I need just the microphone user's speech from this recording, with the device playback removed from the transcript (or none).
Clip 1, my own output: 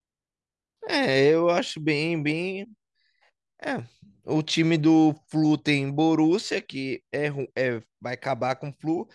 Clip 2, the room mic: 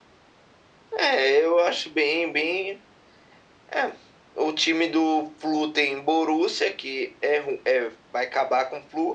none